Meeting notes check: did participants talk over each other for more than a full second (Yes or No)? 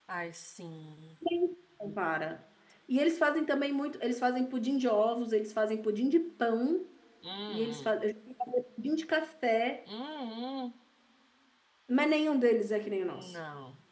No